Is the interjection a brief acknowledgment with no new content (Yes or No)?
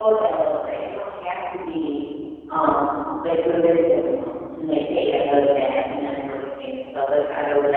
Yes